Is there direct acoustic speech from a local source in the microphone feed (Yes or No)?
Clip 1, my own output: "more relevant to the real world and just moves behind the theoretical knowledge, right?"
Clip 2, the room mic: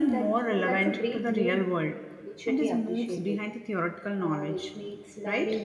Yes